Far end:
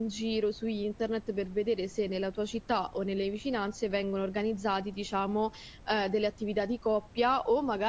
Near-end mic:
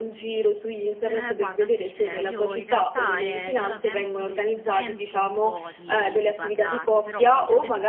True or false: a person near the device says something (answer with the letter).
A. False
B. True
B